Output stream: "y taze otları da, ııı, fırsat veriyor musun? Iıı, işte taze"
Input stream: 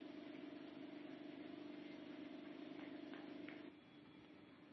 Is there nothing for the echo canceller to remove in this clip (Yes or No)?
Yes